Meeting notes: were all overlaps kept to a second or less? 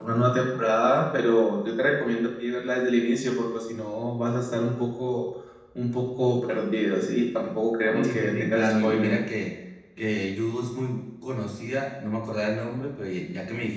No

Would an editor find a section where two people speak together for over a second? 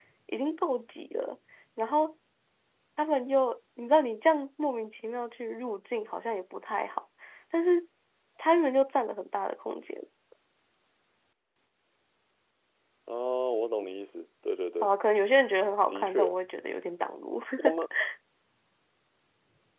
No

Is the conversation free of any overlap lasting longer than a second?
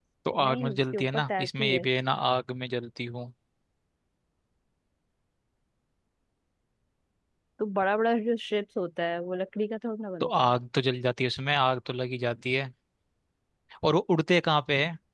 No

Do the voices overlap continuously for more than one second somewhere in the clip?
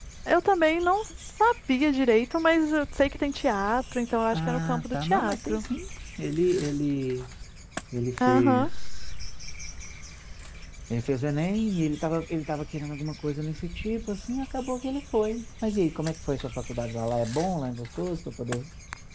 Yes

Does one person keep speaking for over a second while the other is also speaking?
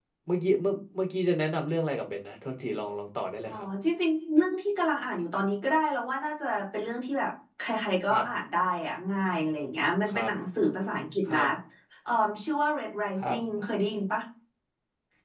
No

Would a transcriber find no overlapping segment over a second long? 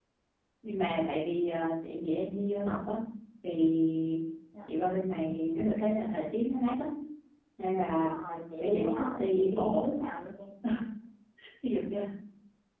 No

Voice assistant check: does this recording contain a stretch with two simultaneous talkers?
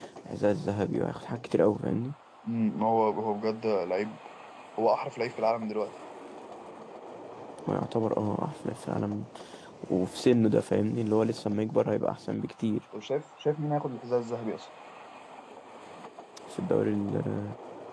No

